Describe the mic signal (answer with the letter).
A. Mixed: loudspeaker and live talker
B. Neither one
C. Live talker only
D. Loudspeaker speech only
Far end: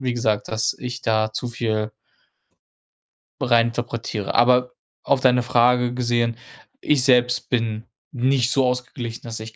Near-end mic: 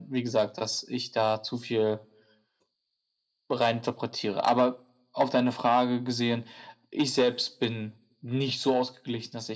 D